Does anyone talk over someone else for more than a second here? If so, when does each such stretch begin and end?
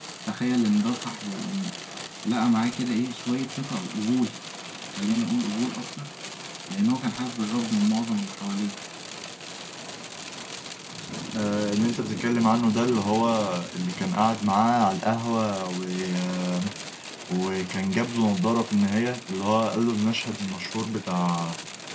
none

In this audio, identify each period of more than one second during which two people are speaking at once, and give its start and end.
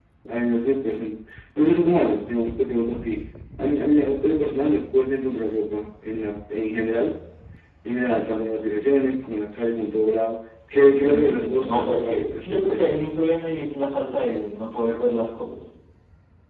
11.0-12.9

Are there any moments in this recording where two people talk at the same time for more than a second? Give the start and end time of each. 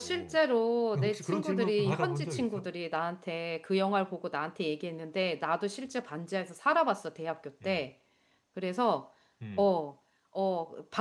0.9-2.7

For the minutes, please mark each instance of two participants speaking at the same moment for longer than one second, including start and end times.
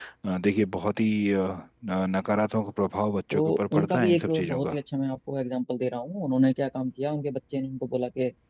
3.3-4.8

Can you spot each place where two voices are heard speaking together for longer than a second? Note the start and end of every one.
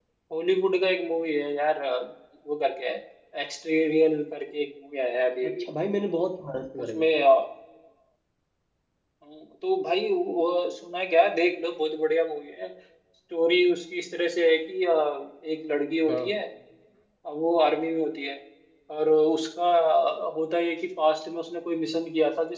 none

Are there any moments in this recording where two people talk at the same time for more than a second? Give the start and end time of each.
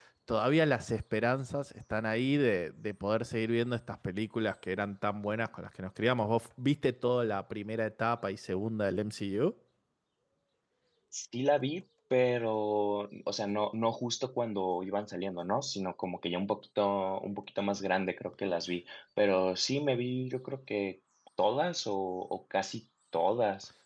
none

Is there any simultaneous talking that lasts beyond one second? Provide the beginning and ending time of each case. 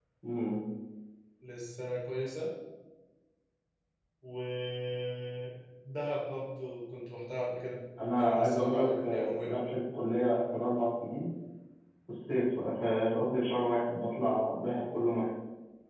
8.1-9.7

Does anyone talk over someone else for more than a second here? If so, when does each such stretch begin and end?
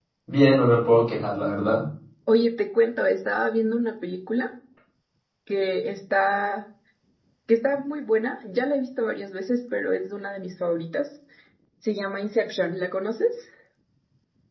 none

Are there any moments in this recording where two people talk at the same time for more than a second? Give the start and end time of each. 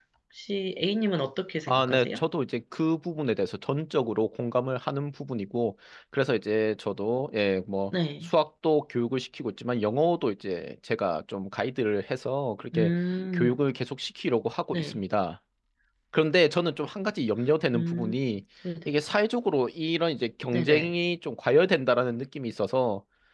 none

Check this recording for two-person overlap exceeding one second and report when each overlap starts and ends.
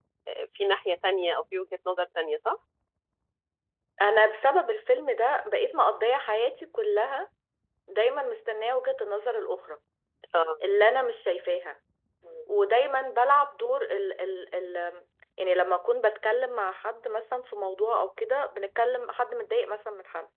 none

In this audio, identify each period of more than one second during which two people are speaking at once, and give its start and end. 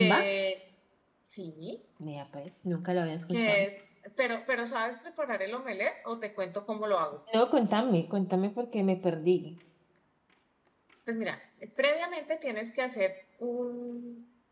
none

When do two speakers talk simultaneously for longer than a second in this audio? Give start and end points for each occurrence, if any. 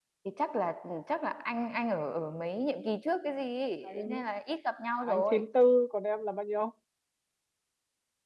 none

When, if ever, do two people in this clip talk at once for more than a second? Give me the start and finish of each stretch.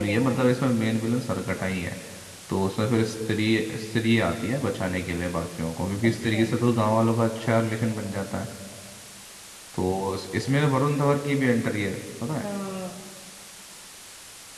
none

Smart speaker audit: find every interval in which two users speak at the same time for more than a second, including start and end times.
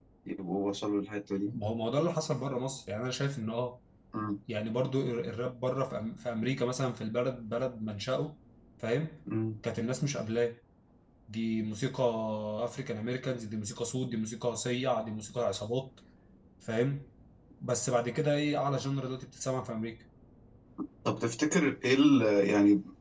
none

